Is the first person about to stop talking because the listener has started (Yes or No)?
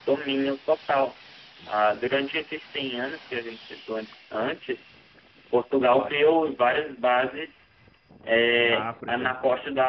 No